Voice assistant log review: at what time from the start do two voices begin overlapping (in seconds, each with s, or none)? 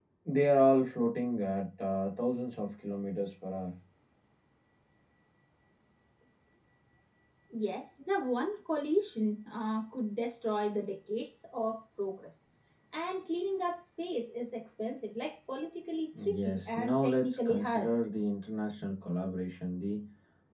16.1 s